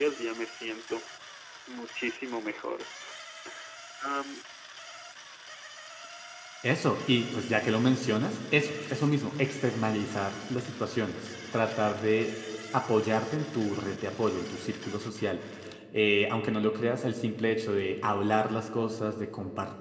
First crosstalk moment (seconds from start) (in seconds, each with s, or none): none